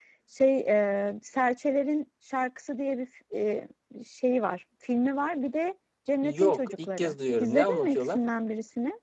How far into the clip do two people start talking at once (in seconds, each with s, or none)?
6.2 s